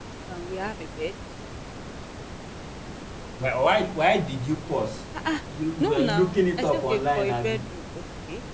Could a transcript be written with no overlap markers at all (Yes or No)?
No